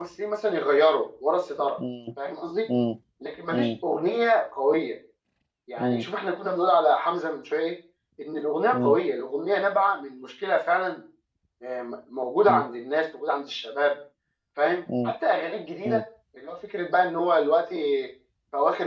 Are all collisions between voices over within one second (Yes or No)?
Yes